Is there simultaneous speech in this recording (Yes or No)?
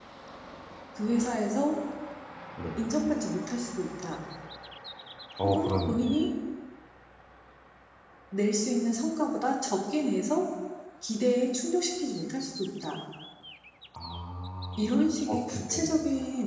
Yes